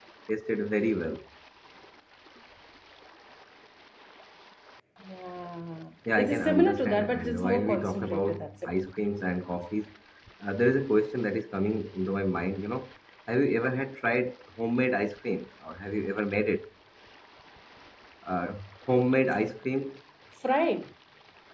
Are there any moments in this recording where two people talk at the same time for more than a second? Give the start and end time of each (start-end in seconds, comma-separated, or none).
6.2-8.7